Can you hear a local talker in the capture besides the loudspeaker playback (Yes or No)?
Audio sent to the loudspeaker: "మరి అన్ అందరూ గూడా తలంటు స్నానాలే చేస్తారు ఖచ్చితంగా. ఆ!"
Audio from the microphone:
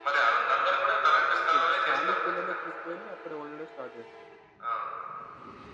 Yes